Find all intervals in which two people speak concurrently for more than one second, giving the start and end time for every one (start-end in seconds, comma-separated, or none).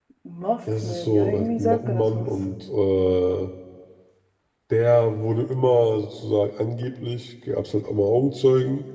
0.8-2.3